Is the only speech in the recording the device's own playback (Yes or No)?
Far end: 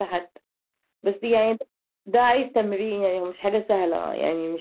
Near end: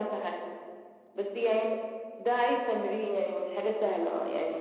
Yes